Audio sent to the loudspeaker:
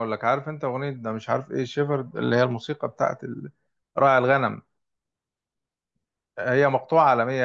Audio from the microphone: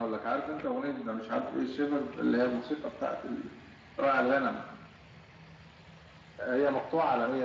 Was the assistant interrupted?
No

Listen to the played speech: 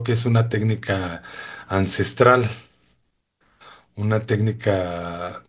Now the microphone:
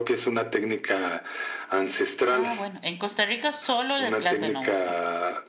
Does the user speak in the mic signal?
Yes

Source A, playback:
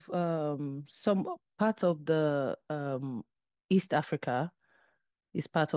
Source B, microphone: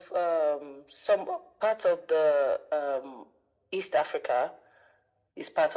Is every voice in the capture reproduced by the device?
Yes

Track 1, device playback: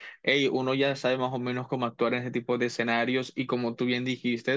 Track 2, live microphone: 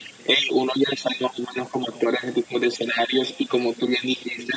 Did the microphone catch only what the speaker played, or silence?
Yes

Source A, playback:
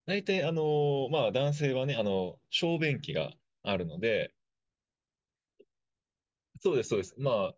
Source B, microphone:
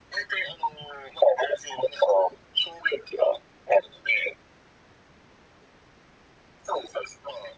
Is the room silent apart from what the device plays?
Yes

